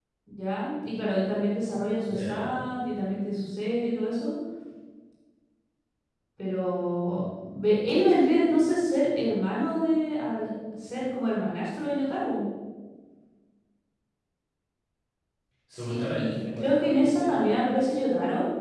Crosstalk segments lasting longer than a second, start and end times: 15.8-17.6

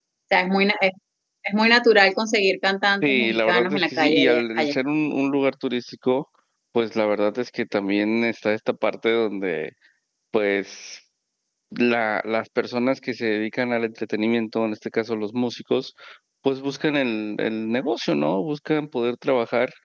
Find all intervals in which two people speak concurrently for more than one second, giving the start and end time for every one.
3.0-4.8

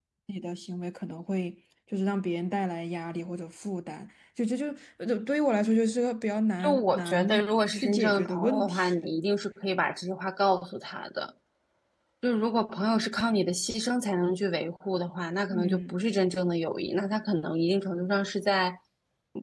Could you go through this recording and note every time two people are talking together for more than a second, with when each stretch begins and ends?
6.6-8.9

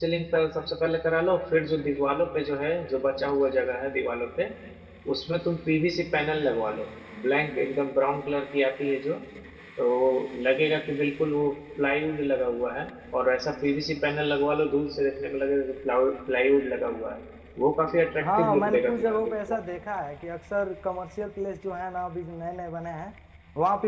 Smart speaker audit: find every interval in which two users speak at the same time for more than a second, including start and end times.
18.2-19.6

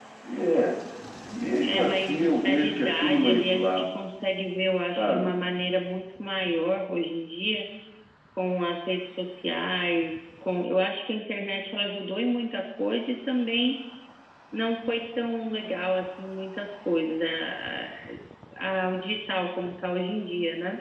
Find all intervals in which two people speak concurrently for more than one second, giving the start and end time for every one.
1.6-4.0

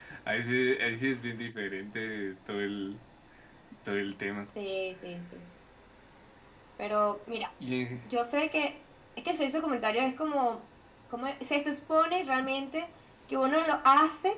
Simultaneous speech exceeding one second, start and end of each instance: none

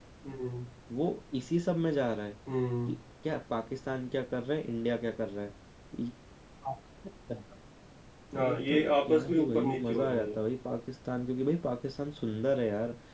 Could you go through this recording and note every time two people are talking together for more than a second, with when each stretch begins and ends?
8.4-10.3

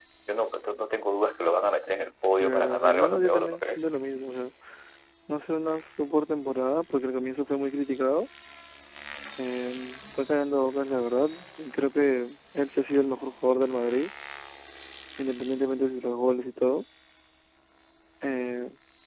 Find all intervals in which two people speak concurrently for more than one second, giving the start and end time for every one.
2.4-3.8

